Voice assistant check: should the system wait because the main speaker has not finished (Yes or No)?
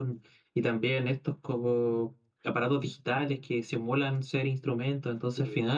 Yes